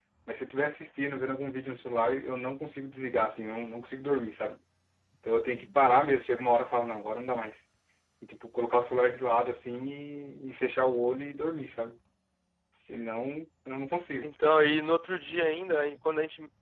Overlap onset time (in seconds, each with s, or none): none